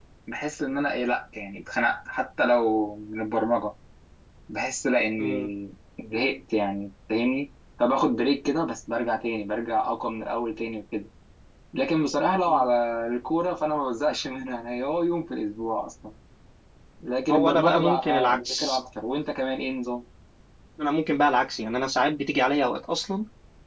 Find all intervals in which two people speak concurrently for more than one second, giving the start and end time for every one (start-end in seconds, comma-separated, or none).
17.3-18.8